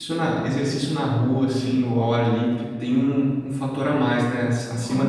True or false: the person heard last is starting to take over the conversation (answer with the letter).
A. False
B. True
B